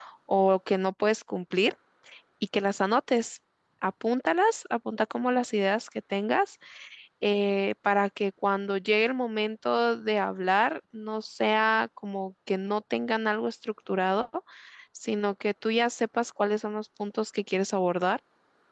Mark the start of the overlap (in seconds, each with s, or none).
none